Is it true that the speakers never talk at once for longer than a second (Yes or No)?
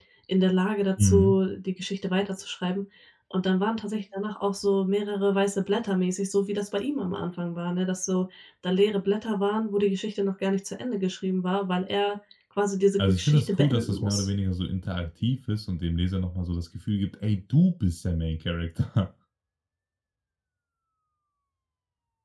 No